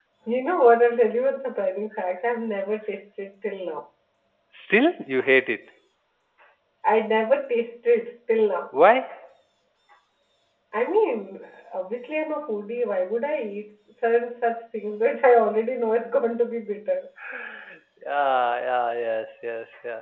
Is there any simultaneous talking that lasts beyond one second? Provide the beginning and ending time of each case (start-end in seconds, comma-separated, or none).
none